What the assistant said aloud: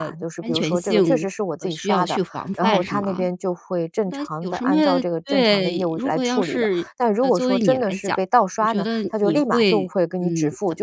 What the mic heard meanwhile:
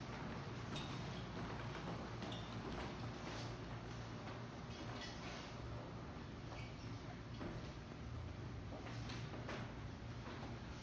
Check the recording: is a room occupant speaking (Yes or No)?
No